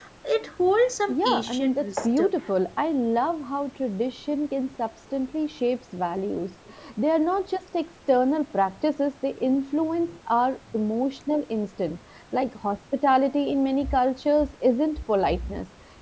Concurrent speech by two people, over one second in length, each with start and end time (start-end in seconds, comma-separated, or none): 1.1-2.3